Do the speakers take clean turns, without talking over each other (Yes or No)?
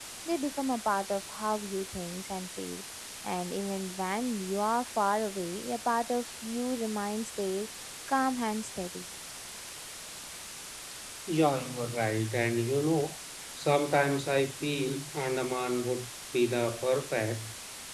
Yes